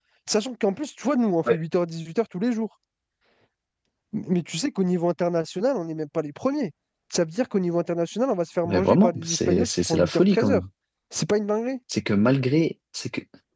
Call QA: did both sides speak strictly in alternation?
No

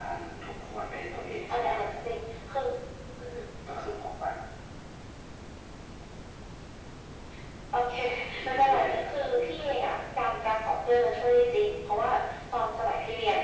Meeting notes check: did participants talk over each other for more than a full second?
Yes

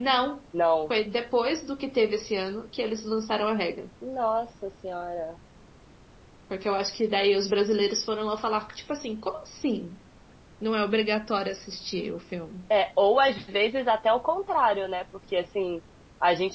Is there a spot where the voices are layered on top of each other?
No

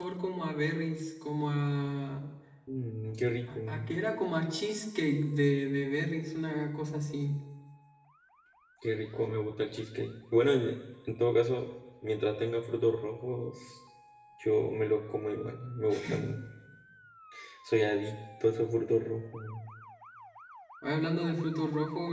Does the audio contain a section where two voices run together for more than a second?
No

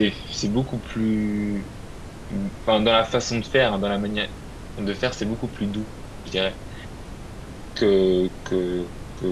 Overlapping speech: No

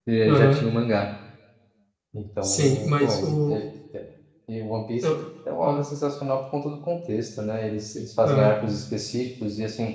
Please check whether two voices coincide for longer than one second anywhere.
Yes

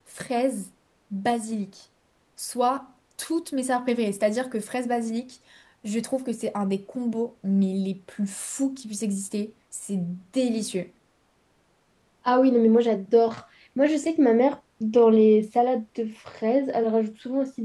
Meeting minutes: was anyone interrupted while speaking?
No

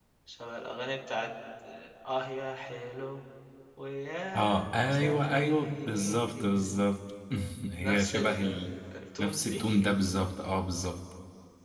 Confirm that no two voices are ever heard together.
No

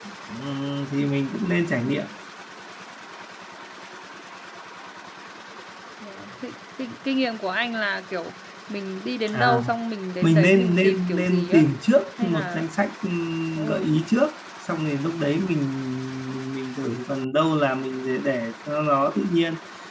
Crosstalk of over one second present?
Yes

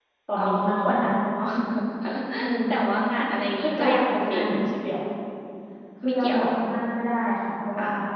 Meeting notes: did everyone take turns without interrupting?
No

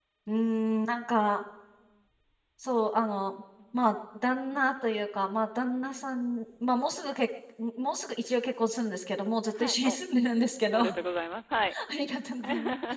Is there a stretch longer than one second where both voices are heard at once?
No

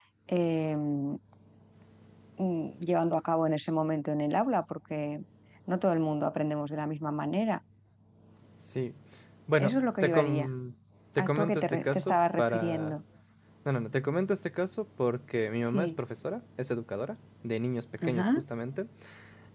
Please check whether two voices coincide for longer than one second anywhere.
Yes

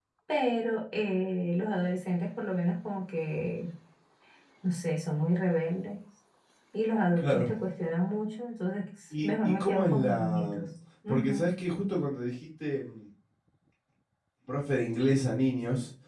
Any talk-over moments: Yes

